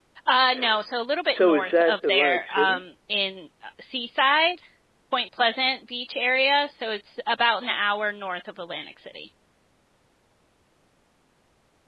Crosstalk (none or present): present